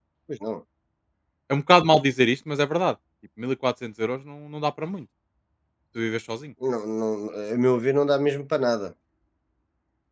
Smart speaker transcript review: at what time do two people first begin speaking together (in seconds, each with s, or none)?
none